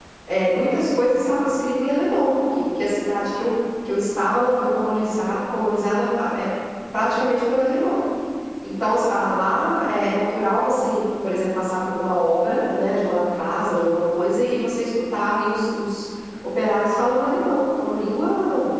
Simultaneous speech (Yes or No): No